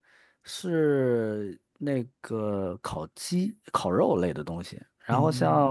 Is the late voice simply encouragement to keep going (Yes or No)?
Yes